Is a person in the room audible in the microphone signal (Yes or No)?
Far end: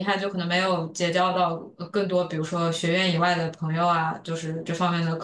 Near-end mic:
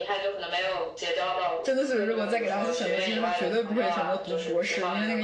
Yes